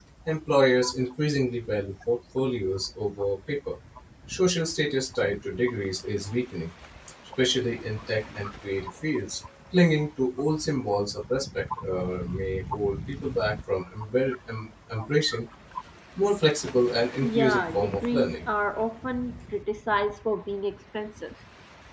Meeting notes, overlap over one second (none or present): present